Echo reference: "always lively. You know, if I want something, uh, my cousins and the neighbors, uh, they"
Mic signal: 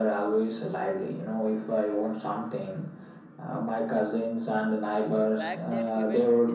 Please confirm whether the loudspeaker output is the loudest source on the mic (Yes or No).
Yes